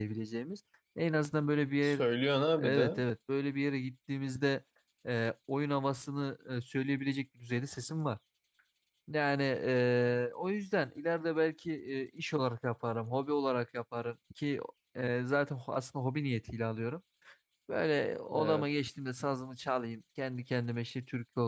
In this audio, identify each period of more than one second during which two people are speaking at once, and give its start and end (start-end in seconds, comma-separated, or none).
none